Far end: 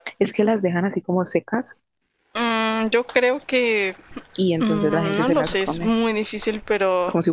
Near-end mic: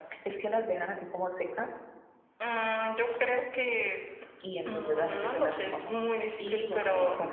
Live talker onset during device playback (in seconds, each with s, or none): 6.4 s